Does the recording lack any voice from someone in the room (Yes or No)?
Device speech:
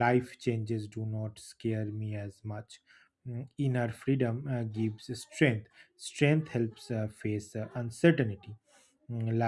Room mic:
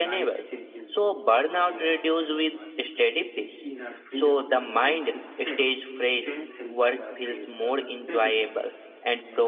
No